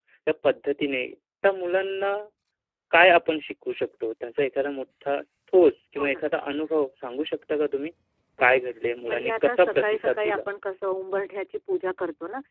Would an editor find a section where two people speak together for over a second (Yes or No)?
Yes